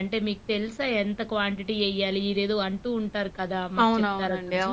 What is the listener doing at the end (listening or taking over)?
taking over